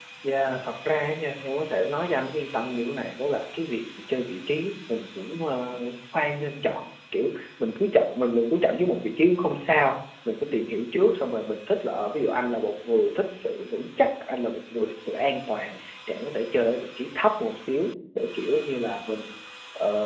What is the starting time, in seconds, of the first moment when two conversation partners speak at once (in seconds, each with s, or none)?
none